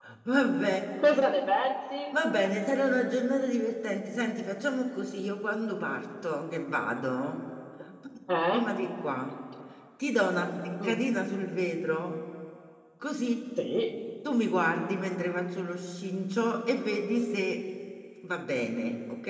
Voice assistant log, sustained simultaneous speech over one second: none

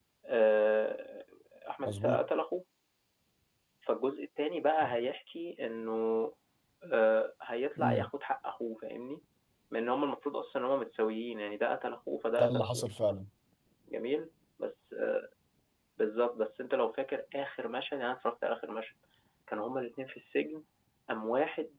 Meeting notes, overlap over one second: none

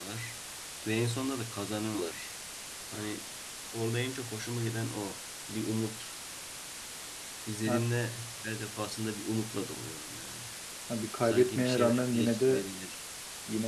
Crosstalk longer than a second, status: present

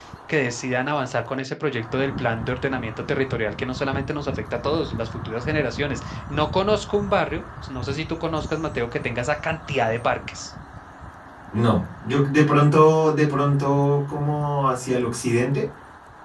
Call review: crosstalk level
none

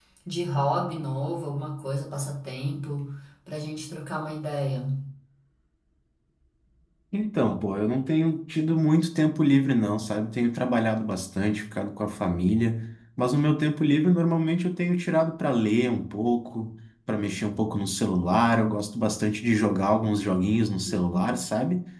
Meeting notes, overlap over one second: none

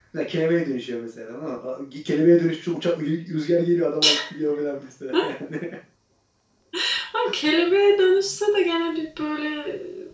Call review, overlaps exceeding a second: none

